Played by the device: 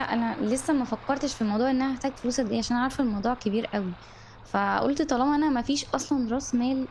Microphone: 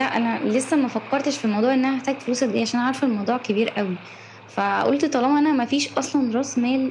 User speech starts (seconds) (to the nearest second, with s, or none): none